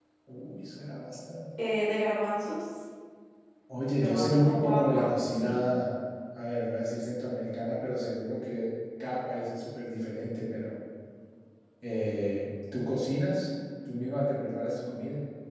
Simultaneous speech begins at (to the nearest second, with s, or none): 4 s